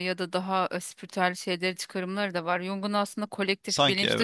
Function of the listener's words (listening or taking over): listening